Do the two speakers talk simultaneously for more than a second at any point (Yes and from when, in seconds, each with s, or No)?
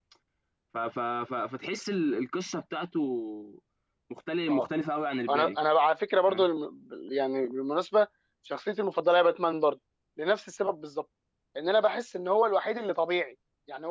No